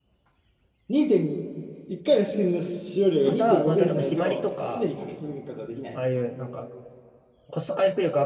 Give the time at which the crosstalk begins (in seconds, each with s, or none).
3.2 s